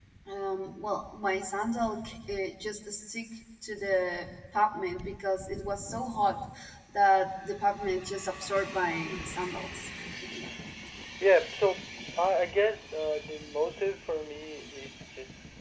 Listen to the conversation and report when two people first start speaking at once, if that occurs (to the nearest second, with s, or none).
none